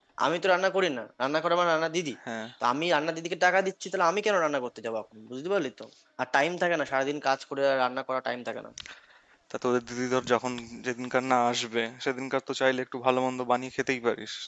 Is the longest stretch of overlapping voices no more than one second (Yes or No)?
Yes